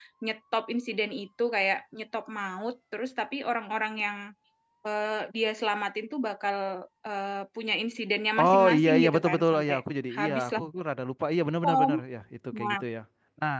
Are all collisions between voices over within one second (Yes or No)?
No